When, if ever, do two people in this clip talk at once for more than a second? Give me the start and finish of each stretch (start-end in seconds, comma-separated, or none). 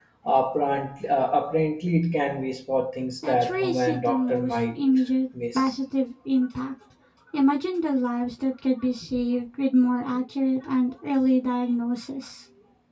3.3-4.8